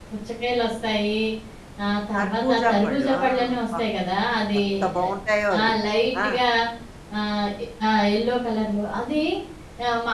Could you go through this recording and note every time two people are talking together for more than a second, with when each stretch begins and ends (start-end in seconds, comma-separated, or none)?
2.1-3.8